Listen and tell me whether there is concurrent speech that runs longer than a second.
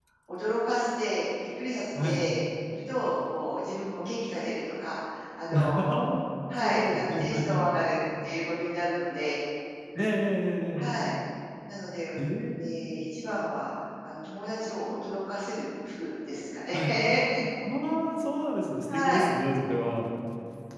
Yes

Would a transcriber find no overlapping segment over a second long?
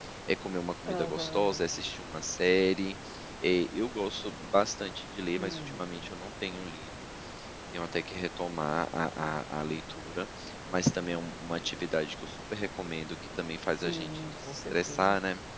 No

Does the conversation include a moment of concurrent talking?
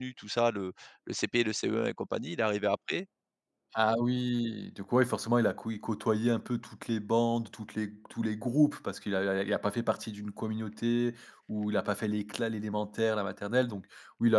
No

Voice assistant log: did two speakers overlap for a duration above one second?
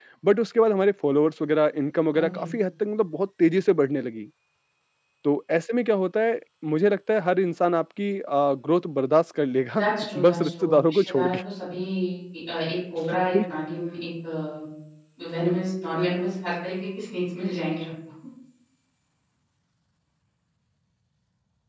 Yes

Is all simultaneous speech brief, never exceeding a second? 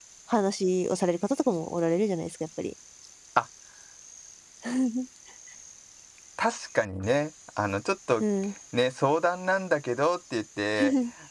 Yes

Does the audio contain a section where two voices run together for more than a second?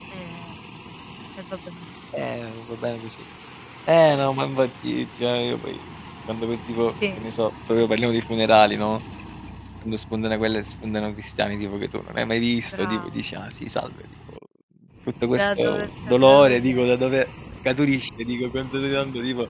Yes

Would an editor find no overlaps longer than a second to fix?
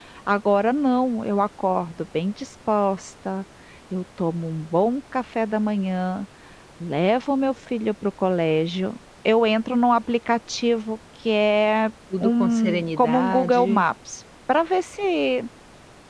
No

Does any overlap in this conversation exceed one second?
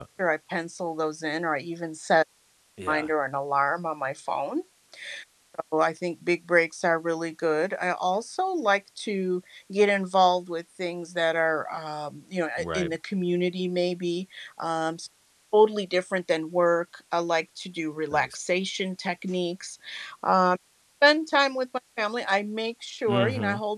No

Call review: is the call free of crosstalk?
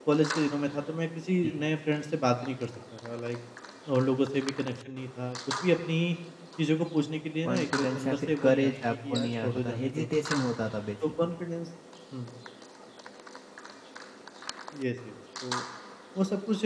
No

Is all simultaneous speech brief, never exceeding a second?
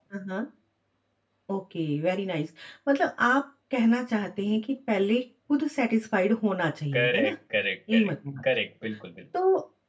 Yes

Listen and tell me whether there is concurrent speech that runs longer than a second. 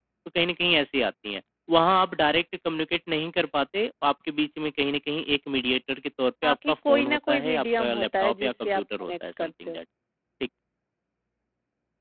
Yes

